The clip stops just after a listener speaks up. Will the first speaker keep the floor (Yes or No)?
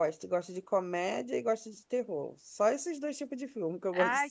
No